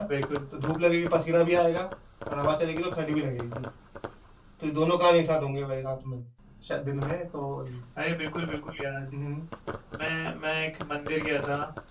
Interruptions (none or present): none